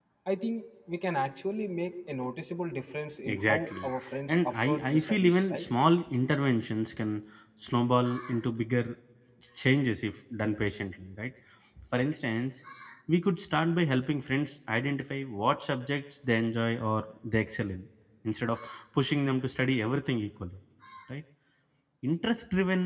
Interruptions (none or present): present